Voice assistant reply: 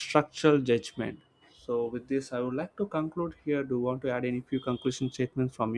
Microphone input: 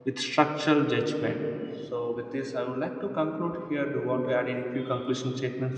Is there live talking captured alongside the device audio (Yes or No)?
No